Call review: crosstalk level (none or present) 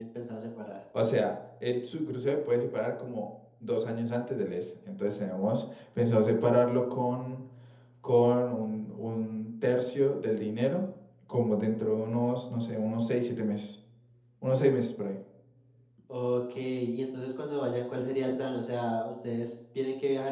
none